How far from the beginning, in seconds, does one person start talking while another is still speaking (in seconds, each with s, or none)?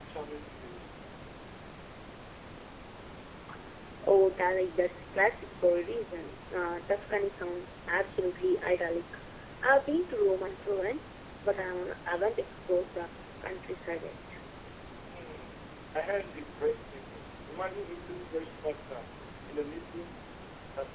none